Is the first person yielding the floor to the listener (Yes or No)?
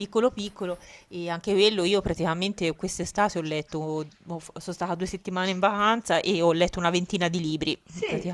Yes